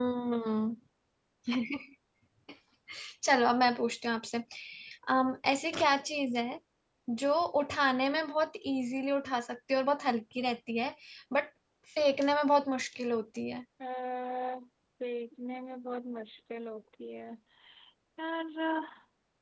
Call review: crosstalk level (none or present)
none